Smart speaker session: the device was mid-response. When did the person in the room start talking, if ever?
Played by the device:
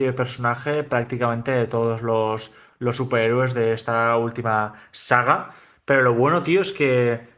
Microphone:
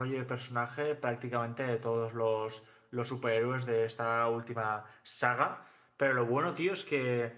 none

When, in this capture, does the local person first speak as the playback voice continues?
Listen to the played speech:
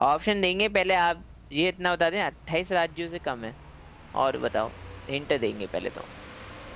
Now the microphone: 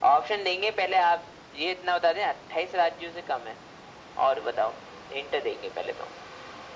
none

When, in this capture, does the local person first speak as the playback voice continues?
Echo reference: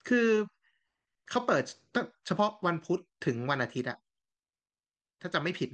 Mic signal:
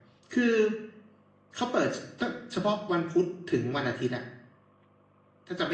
none

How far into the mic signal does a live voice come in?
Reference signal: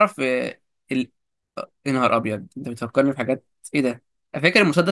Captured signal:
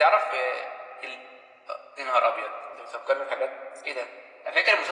none

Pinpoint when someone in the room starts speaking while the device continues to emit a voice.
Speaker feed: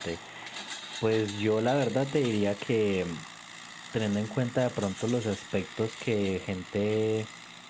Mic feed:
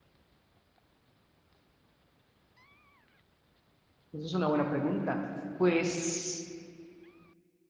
4 s

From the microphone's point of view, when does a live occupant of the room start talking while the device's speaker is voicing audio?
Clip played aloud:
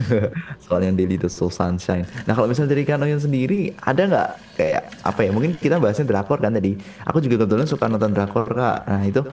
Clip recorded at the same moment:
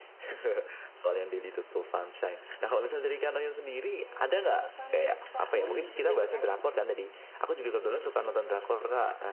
4 s

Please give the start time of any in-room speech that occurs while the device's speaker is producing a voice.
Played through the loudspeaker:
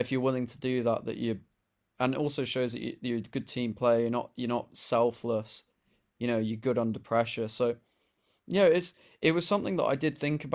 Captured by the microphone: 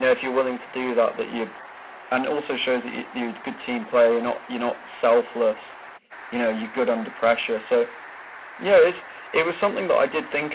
none

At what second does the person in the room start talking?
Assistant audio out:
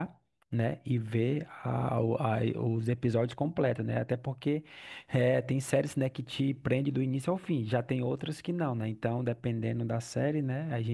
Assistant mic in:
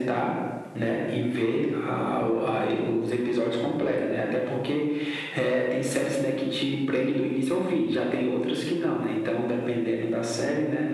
none

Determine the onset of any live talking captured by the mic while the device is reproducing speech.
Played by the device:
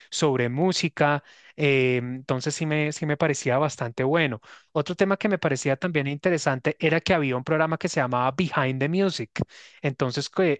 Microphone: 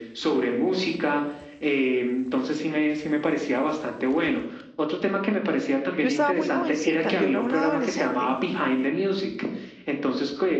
6 s

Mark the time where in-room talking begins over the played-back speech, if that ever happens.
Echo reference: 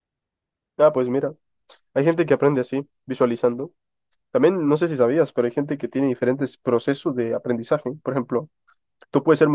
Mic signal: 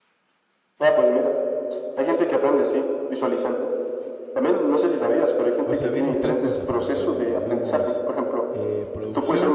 6 s

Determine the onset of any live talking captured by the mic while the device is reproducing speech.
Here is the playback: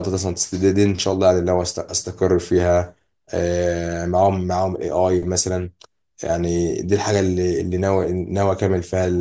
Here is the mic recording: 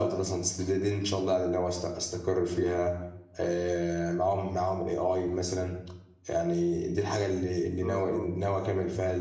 8 s

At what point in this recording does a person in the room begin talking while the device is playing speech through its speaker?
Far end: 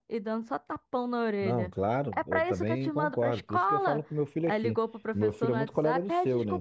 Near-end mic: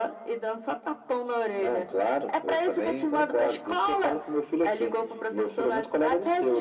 none

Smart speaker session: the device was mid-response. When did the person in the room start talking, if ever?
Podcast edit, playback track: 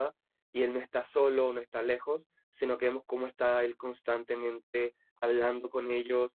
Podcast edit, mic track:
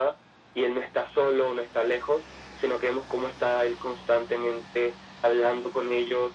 none

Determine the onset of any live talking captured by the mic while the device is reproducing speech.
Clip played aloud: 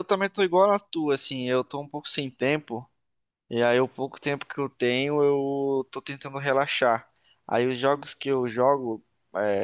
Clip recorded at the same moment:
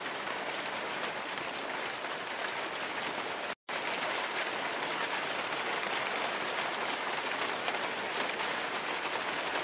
none

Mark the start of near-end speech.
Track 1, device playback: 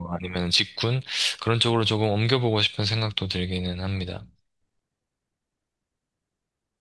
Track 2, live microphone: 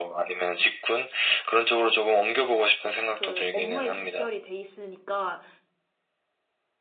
3 s

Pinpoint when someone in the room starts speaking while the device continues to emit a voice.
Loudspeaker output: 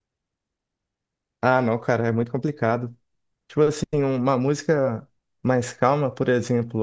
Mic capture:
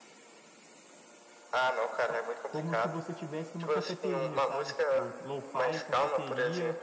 2 s

